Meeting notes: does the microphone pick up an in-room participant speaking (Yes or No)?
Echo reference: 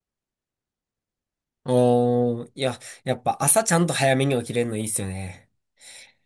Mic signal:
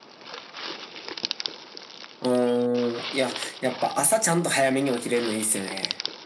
No